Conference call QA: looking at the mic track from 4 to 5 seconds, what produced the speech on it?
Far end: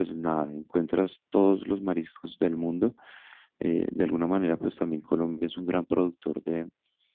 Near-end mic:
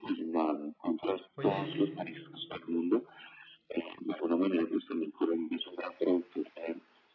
echo only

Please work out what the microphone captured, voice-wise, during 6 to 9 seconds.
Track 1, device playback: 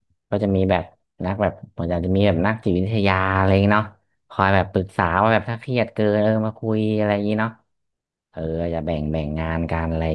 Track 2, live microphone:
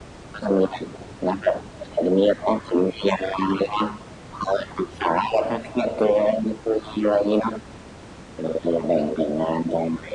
echo only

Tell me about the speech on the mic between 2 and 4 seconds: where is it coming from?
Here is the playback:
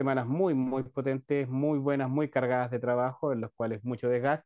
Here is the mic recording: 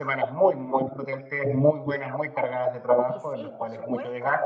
both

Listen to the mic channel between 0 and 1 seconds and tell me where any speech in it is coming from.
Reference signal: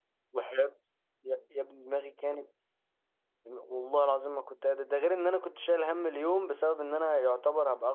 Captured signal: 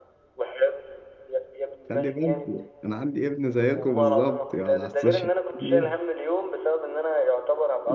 echo only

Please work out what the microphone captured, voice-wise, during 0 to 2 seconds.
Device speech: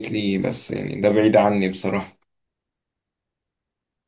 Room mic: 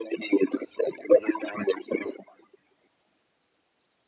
echo only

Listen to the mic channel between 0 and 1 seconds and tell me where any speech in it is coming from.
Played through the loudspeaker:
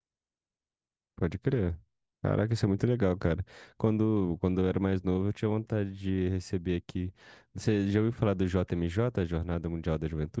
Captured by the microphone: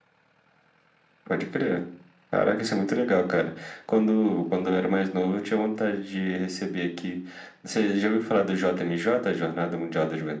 neither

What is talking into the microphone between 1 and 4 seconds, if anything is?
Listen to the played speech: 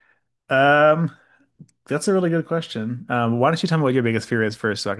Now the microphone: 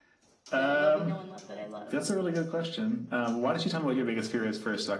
both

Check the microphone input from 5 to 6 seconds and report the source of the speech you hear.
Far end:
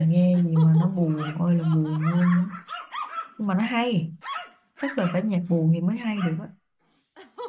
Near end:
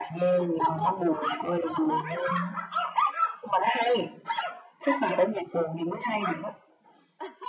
echo only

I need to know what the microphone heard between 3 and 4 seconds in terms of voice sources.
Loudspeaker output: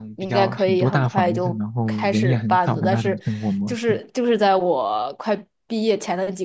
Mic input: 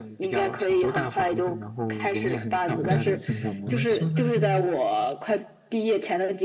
both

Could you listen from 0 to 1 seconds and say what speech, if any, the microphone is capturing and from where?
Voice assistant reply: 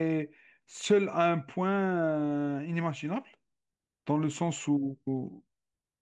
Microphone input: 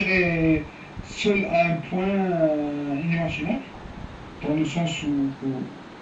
echo only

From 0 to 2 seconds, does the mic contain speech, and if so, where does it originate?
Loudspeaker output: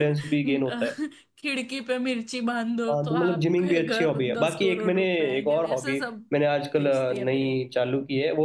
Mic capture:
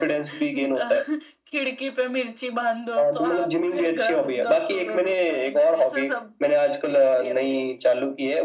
echo only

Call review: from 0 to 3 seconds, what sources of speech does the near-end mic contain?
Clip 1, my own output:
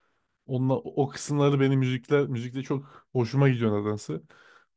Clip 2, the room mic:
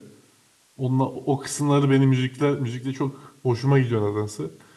echo only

